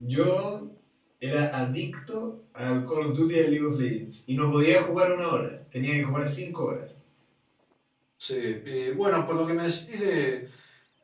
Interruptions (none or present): none